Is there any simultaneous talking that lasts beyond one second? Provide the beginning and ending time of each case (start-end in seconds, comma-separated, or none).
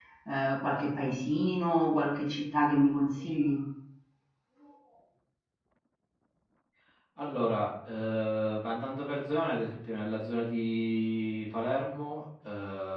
none